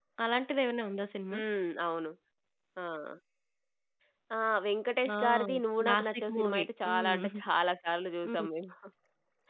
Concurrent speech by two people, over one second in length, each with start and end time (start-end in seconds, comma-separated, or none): 5.8-7.2